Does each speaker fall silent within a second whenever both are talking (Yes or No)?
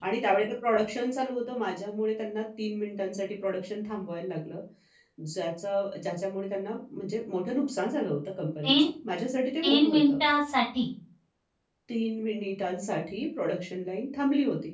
Yes